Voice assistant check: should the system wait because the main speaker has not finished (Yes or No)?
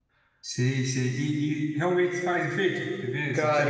No